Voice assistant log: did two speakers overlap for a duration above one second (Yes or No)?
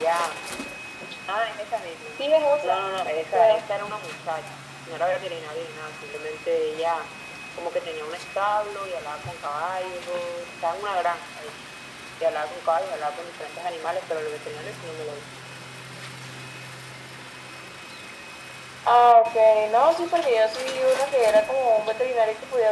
No